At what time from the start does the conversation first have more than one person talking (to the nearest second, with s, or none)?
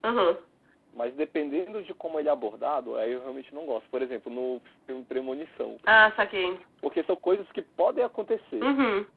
none